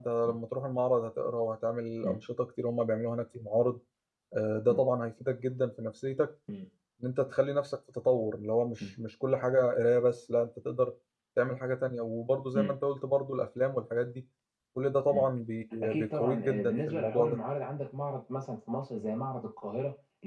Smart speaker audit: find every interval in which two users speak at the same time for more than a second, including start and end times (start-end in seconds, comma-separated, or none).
15.8-17.4